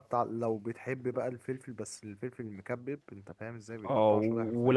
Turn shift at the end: Yes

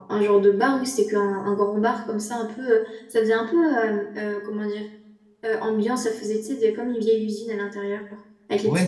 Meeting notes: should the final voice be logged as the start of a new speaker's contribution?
Yes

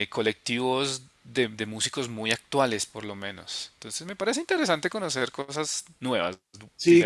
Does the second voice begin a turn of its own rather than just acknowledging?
Yes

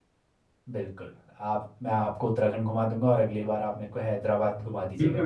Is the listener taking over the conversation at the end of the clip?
Yes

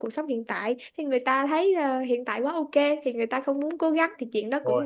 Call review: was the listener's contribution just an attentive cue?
Yes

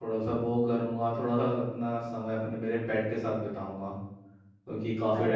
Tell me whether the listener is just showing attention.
Yes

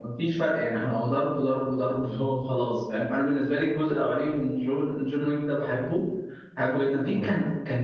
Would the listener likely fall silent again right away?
Yes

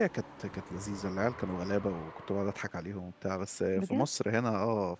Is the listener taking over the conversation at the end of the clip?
No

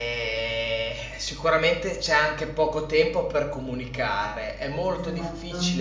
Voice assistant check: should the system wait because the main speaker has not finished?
Yes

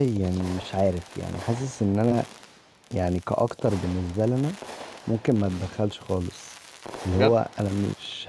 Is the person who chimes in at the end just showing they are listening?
Yes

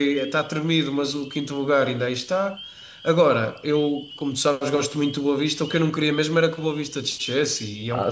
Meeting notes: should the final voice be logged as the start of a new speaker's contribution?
Yes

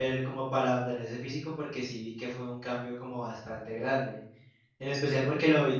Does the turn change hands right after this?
No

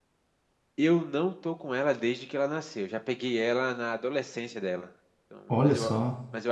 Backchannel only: Yes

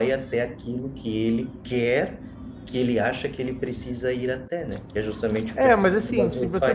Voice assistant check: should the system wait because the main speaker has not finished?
No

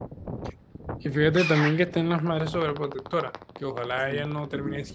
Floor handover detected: No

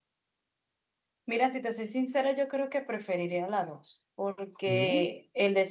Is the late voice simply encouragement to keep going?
Yes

